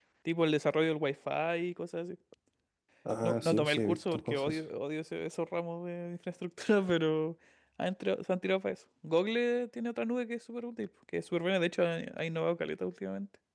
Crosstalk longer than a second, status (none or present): present